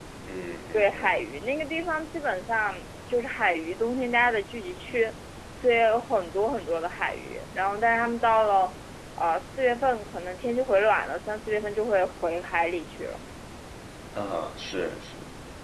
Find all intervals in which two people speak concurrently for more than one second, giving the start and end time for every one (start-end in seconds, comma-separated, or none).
none